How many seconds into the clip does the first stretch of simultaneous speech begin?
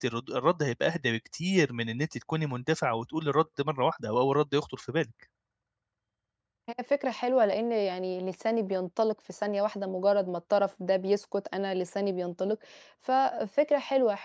none

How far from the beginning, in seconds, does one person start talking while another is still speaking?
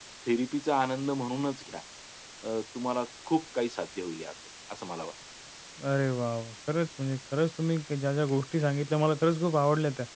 none

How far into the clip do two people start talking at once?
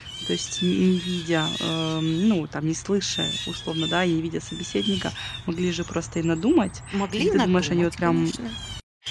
7 s

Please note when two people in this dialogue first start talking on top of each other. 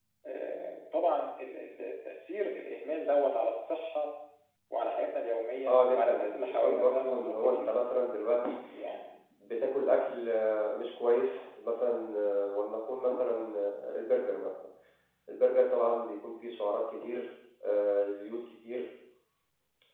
6 s

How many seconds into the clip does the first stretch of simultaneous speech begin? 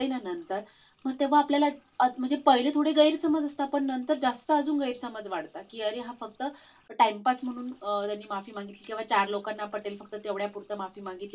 none

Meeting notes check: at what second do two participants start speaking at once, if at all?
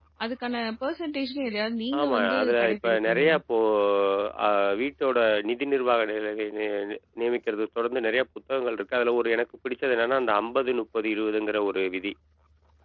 2 s

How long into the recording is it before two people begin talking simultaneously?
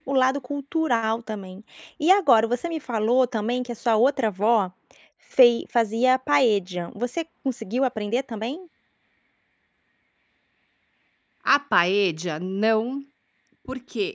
none

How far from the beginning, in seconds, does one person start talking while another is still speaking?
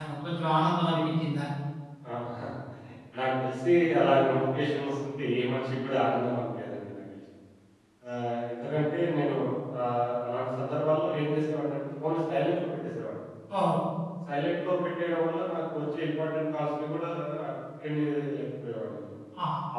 none

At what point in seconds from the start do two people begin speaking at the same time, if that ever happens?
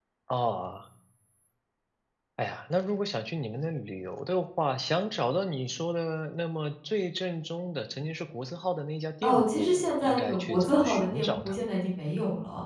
9 s

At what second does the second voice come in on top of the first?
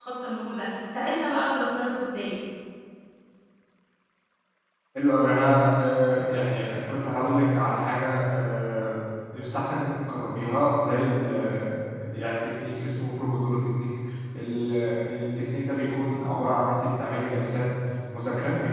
none

